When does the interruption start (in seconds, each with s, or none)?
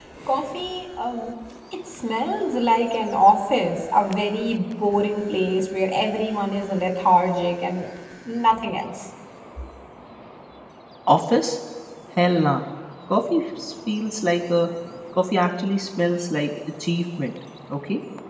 none